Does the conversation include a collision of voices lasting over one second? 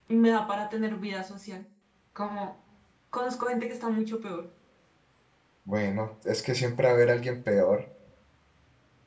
No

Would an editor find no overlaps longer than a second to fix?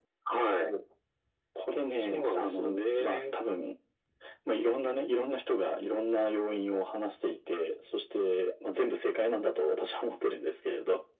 No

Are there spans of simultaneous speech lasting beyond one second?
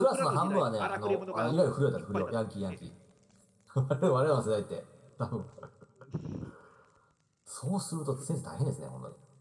Yes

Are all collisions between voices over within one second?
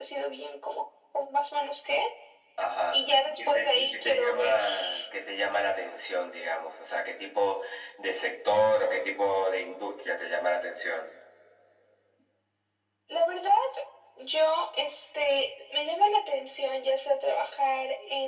No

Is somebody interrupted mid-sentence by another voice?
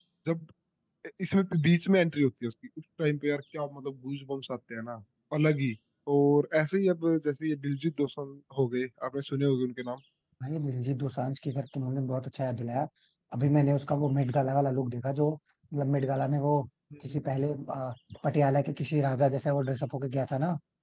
No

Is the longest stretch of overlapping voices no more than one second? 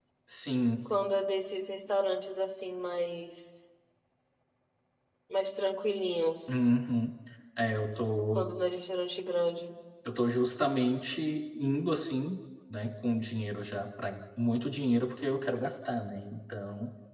Yes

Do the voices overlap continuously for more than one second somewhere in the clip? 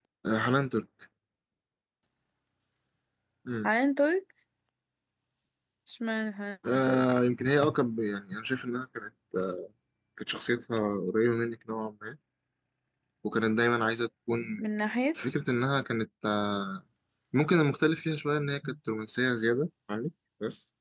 No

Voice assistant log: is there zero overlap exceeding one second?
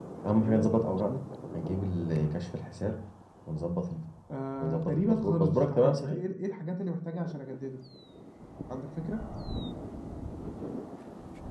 No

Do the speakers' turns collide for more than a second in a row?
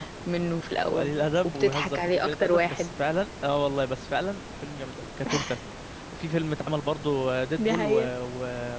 Yes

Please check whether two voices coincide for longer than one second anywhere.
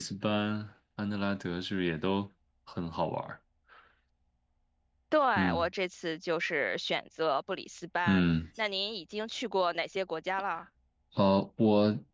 No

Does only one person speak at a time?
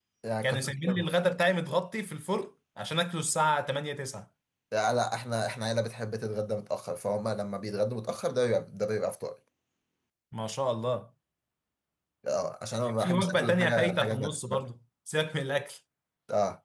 No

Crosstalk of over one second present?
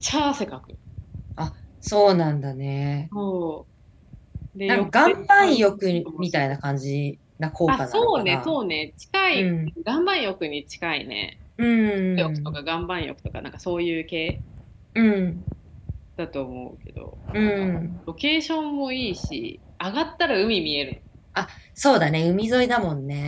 Yes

